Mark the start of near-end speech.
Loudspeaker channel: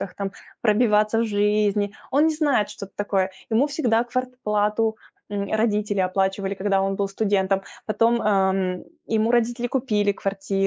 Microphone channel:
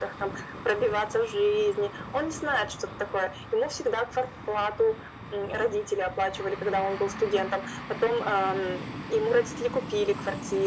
none

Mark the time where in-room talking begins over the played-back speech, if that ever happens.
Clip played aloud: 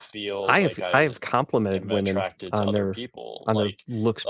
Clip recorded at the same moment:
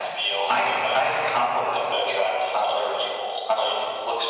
none

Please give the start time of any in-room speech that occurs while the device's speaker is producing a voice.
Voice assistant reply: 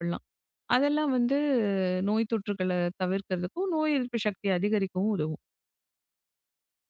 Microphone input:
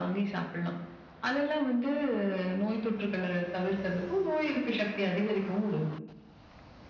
none

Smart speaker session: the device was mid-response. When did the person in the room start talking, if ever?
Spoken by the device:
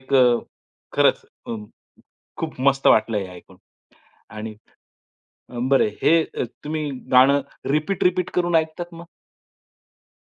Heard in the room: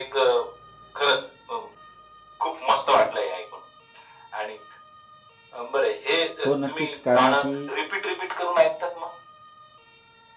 6 s

